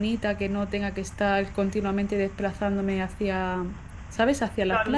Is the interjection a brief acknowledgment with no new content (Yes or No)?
No